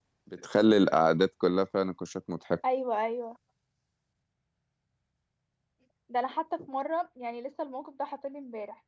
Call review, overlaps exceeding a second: none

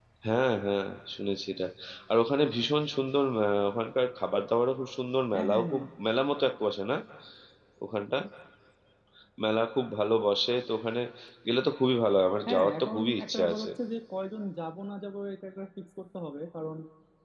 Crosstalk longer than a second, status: present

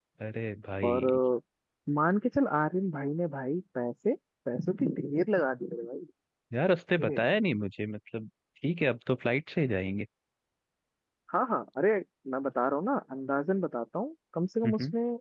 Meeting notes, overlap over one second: none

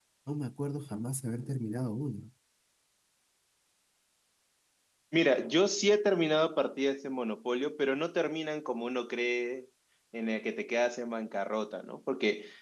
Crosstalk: none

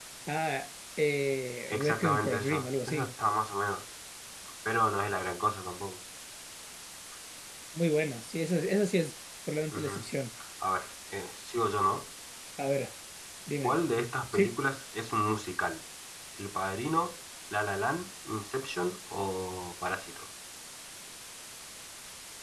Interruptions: present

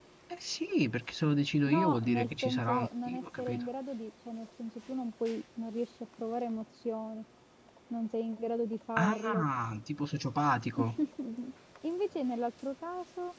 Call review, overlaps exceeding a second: present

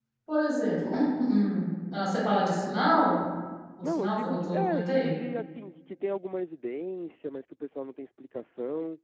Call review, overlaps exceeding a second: present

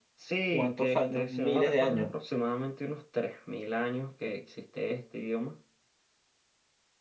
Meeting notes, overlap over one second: present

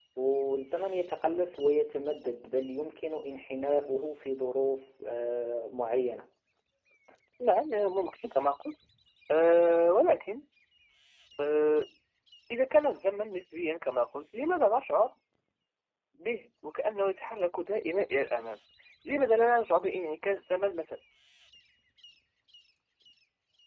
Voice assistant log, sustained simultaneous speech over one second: none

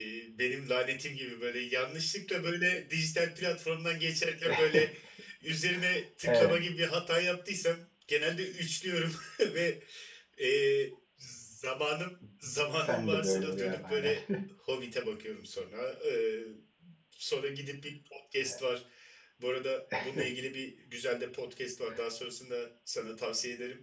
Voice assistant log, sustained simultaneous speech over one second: present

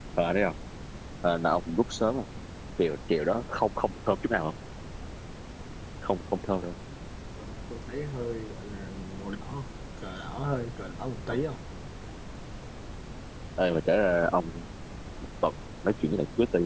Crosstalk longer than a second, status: none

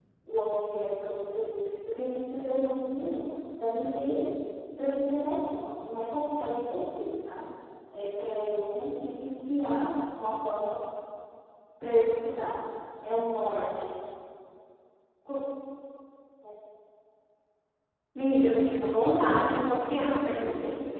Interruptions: none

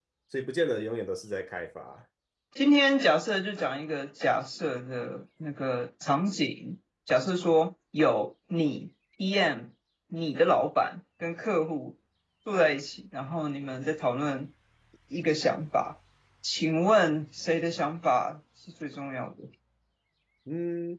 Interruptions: none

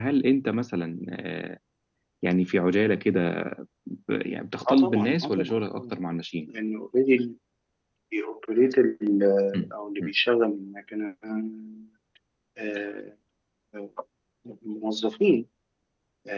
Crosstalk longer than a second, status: present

